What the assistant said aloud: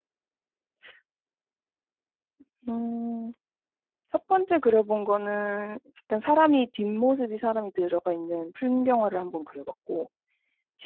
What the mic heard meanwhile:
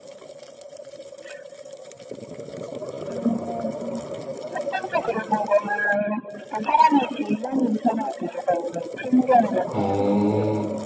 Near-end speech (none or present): present